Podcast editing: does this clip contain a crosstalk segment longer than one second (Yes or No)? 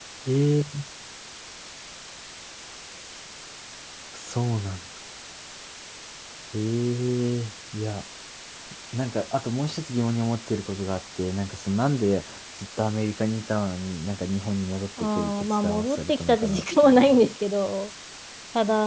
Yes